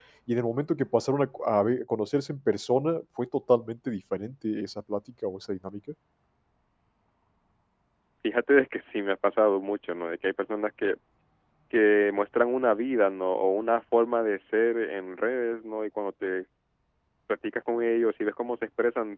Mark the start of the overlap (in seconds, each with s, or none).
none